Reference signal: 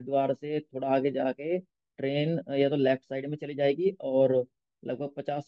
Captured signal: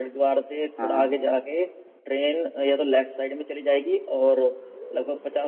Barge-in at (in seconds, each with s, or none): 0.8 s